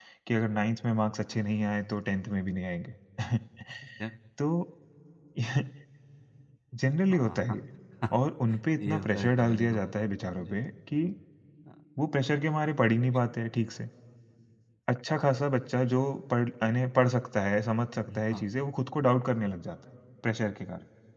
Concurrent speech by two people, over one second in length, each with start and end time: 8.8-10.0

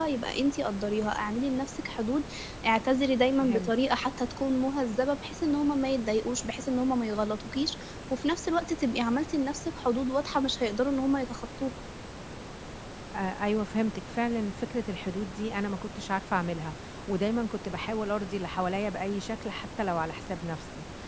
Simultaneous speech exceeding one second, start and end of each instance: none

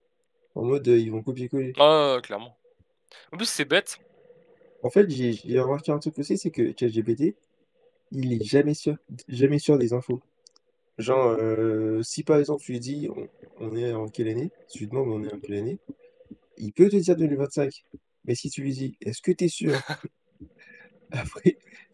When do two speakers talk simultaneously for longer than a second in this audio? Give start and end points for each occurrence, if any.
none

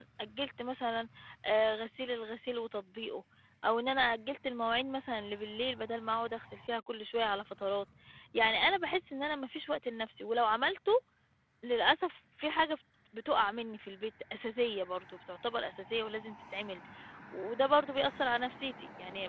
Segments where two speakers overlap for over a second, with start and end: none

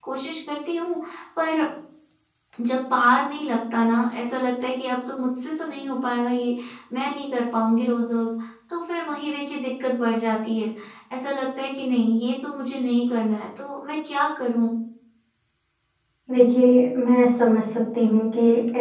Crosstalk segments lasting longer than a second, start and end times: none

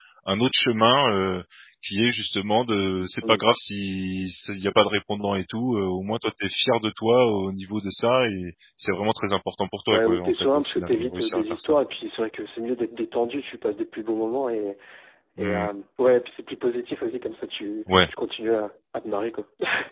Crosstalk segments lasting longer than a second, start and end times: 9.9-11.8

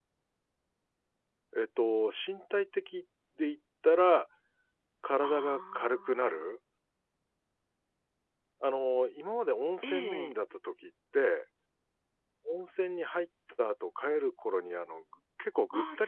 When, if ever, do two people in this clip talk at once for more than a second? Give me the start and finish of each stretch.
5.2-6.4

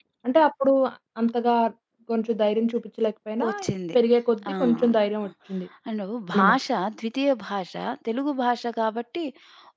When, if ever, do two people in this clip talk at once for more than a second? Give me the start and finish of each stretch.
none

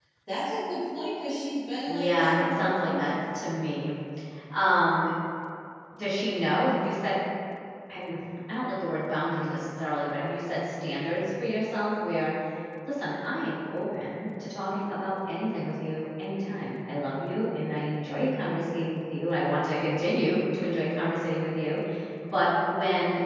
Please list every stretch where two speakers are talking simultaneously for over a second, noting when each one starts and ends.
1.9-3.1

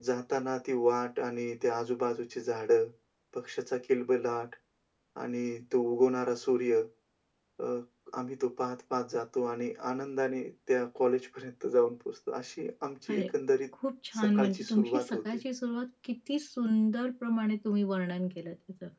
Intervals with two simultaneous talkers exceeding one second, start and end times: 14.2-15.4

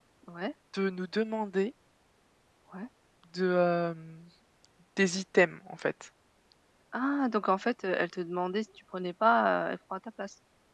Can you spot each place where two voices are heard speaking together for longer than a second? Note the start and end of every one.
none

